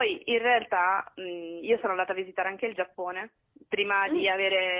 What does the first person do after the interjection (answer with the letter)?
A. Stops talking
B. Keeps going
B